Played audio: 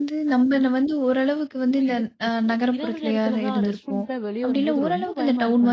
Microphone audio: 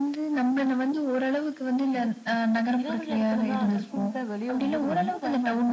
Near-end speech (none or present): present